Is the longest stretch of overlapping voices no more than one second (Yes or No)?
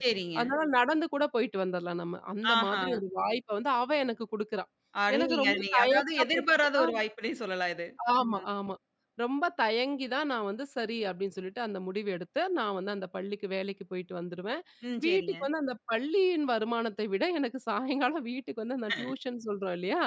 No